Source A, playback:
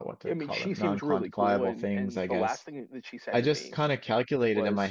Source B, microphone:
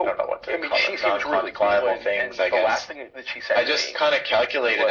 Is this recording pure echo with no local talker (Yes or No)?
Yes